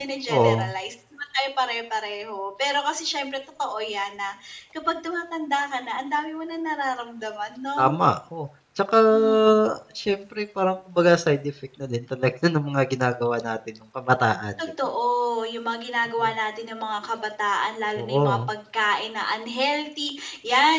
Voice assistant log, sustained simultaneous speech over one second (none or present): none